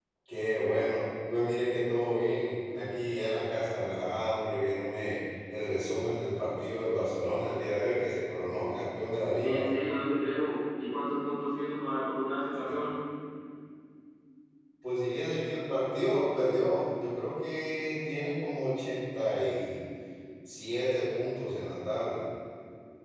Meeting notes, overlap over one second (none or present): none